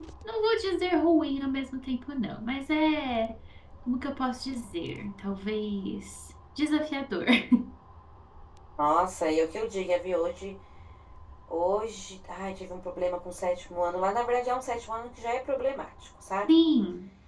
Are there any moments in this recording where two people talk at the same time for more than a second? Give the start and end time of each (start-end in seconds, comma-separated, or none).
none